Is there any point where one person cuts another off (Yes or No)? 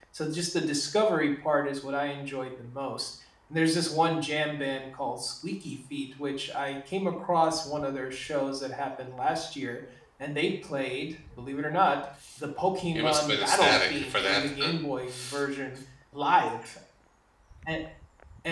Yes